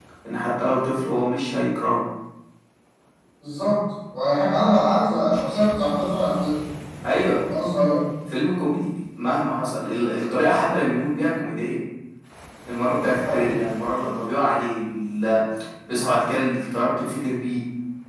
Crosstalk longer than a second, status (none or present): none